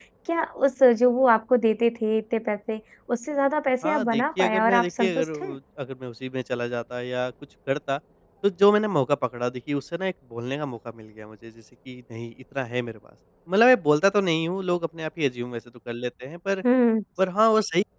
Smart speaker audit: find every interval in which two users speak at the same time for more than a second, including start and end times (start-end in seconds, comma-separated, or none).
3.8-5.6